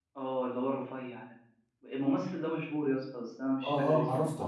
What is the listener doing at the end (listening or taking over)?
taking over